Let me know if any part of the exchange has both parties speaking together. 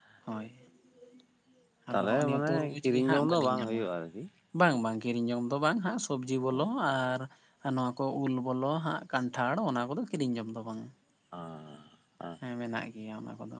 Yes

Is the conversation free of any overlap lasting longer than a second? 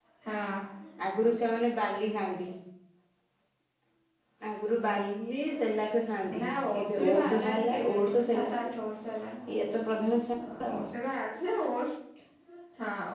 No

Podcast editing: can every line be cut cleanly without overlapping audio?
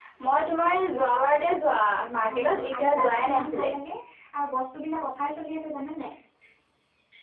No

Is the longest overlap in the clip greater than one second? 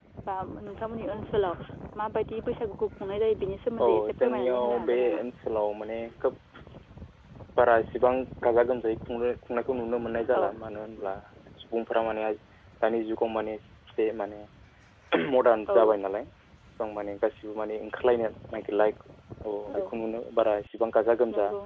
Yes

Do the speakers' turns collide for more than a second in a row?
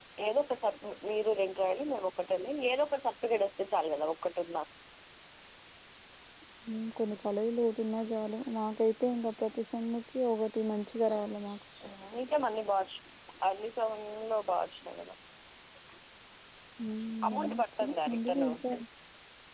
Yes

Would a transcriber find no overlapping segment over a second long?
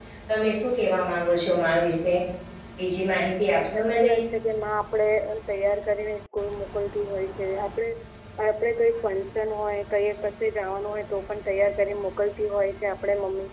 Yes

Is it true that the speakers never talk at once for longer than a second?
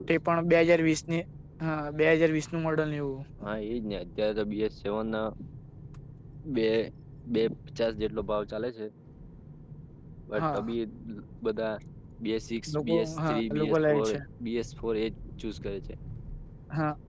No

